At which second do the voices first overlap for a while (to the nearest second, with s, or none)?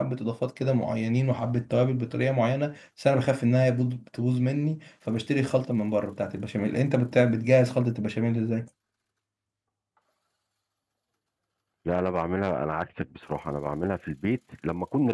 none